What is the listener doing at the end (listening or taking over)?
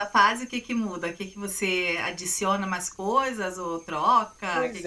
taking over